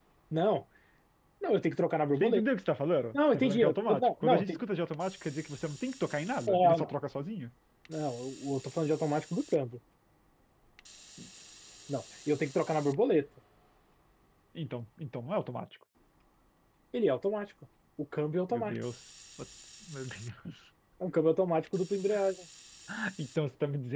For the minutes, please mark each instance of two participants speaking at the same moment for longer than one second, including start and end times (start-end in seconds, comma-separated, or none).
3.1-4.6